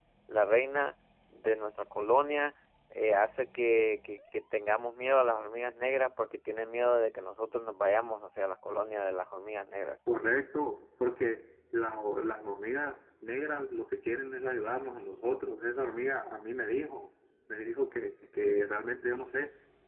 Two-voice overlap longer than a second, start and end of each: none

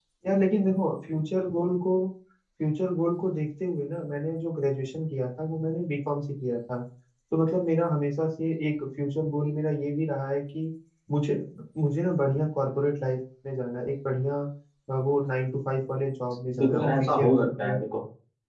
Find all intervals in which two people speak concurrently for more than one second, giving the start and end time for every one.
16.6-17.8

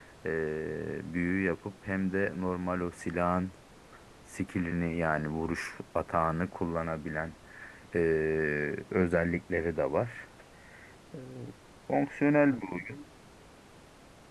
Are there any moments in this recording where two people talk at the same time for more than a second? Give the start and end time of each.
none

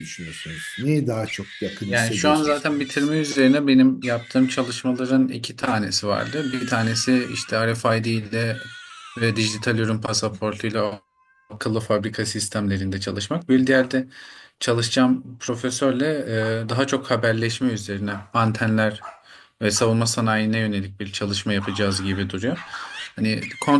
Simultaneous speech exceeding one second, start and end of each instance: 1.9-3.1

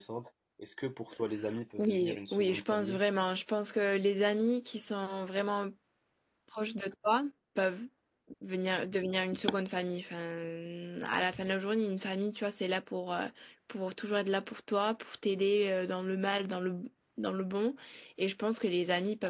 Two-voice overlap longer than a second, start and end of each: 1.8-3.0

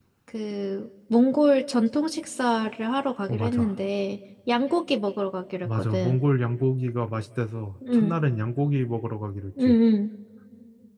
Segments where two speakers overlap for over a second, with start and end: none

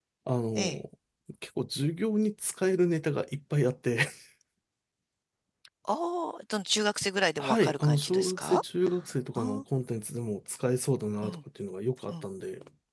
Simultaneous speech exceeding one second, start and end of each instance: 7.4-8.6

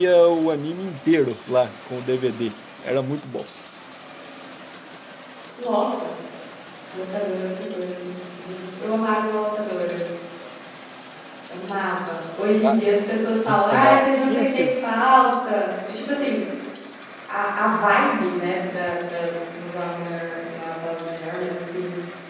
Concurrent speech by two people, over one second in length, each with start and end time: 13.5-14.7

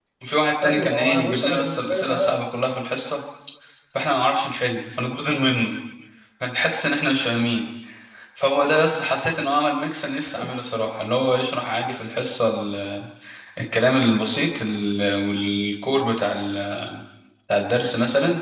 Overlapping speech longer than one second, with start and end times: 0.6-2.4

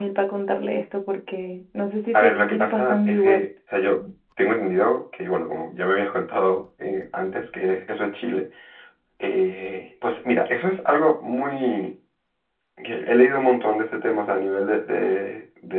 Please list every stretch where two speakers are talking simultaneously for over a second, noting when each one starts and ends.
2.1-3.5

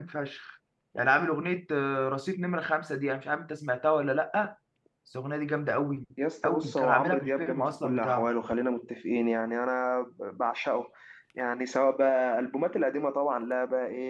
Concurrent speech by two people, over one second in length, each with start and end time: 6.4-8.3

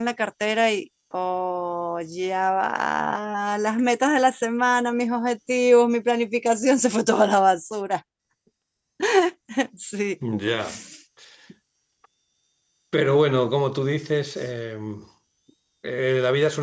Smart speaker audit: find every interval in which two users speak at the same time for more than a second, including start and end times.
none

